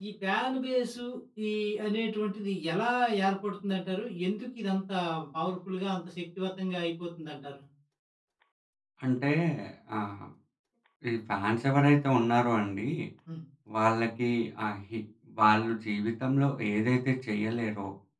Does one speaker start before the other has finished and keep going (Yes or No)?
No